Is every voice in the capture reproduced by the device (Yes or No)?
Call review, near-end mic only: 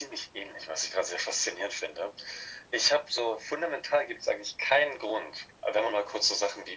Yes